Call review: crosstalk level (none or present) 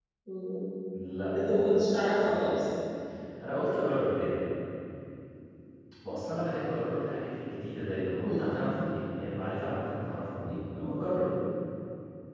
present